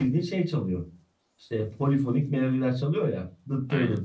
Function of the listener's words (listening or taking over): listening